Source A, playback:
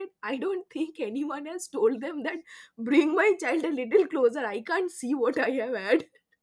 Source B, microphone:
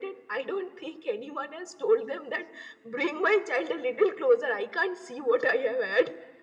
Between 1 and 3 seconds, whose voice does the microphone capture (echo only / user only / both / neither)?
echo only